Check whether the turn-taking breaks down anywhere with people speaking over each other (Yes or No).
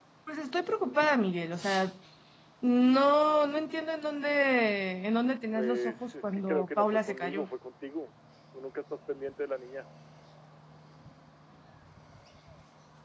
Yes